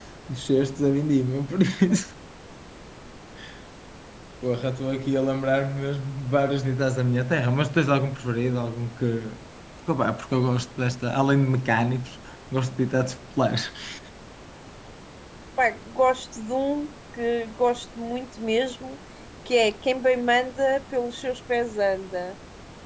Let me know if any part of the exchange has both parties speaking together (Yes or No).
No